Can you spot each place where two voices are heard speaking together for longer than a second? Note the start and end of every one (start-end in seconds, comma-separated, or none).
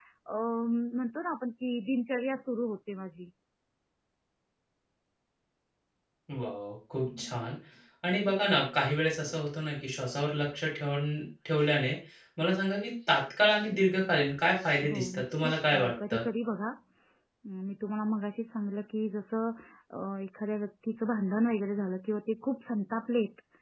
14.9-16.2